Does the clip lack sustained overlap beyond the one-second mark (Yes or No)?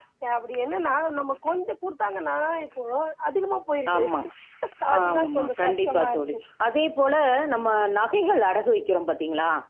No